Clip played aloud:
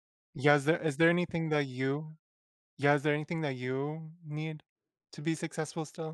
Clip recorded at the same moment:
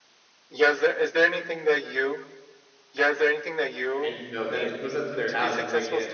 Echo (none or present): present